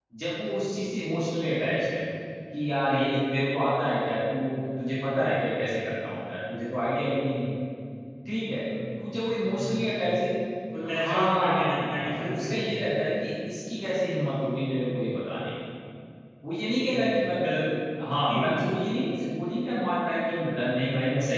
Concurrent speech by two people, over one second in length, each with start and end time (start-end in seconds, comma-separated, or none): 10.9-12.8